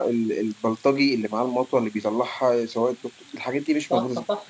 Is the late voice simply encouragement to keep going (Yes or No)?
No